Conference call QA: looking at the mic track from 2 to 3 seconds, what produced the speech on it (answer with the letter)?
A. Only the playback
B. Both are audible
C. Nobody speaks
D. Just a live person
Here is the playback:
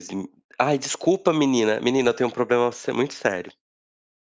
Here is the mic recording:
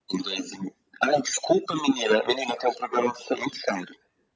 A